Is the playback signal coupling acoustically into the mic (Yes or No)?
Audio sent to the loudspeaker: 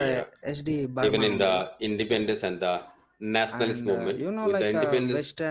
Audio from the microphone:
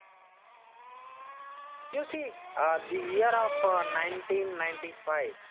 No